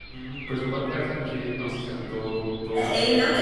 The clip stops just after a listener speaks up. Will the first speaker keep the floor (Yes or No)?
No